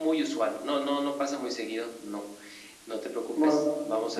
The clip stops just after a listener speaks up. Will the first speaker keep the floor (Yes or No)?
No